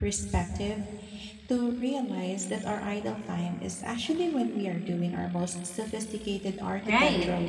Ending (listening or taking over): taking over